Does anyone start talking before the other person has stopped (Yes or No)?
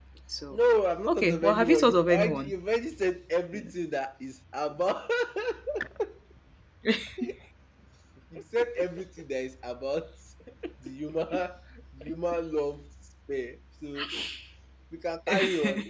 Yes